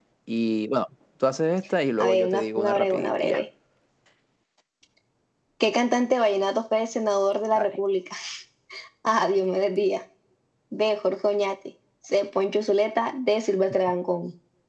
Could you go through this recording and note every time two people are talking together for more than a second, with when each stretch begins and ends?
2.0-3.4

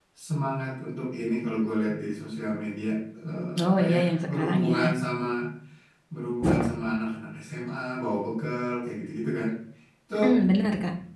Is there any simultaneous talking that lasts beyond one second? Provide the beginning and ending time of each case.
3.7-4.9

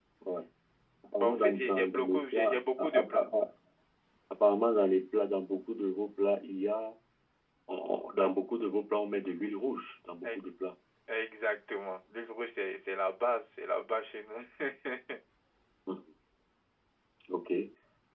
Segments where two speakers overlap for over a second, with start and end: 1.2-3.2

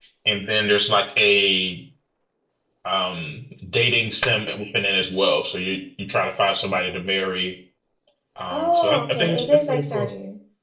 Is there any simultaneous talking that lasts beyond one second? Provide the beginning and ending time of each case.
8.5-10.1

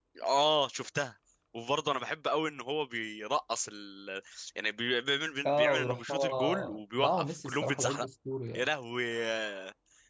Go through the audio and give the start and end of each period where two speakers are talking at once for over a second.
5.5-8.1

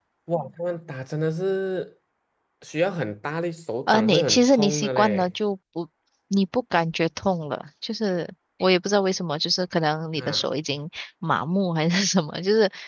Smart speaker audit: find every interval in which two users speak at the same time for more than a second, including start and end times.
3.9-5.3

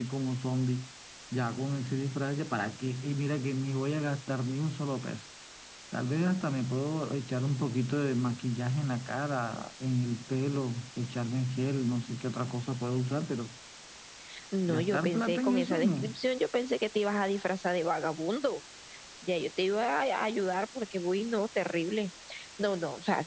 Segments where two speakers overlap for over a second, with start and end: 14.7-16.0

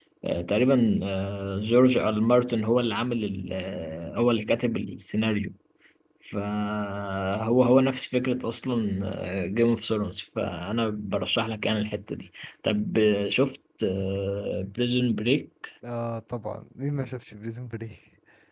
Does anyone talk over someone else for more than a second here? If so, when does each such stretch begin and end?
none

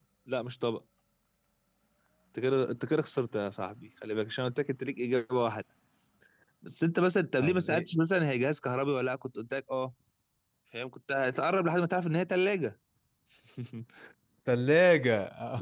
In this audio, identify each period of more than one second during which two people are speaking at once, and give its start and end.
none

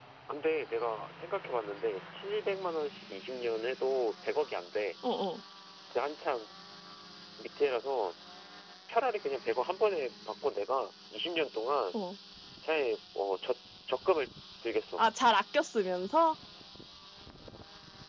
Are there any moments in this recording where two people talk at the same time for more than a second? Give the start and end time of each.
none

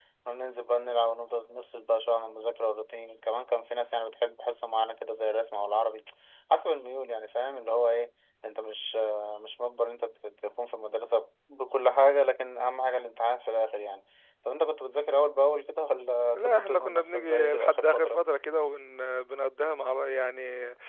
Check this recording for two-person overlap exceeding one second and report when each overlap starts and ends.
16.3-18.2

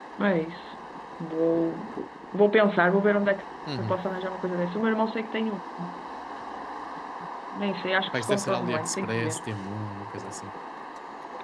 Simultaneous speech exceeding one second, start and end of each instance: 8.1-9.4

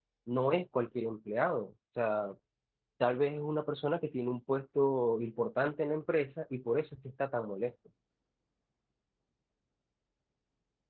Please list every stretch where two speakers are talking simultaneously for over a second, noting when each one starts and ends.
none

